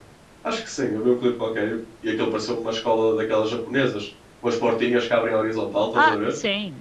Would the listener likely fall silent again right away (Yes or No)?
No